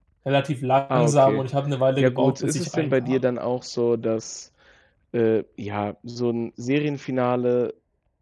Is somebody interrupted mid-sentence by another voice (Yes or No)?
Yes